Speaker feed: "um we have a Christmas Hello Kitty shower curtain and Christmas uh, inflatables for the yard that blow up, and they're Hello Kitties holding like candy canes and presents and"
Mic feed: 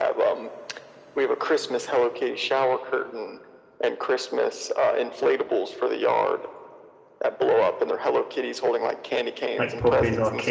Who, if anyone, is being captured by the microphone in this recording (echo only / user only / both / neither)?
both